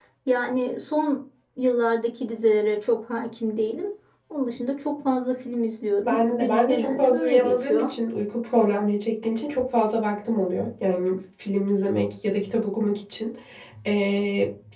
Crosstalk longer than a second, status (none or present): present